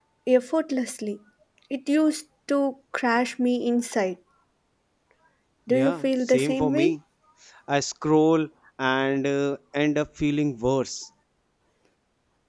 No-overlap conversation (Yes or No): No